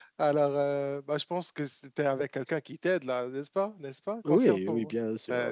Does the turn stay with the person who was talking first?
No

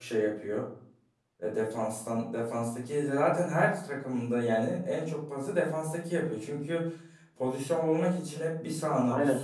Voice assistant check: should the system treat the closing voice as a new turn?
No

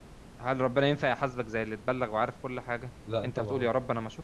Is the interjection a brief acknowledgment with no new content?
Yes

